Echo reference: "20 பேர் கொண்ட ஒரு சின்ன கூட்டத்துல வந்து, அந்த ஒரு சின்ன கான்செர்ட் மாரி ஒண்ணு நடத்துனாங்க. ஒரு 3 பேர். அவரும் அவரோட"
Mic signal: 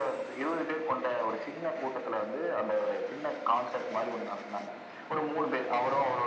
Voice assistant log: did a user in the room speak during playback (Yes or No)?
No